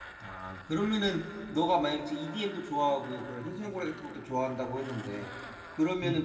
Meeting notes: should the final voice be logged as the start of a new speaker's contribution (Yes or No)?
No